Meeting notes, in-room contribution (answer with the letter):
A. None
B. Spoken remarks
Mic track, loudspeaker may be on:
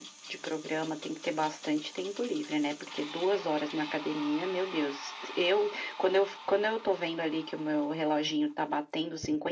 A